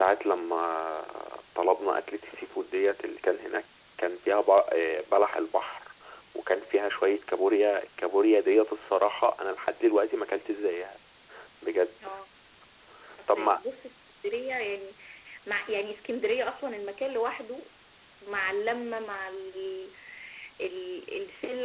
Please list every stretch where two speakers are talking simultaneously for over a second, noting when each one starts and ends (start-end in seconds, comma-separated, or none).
none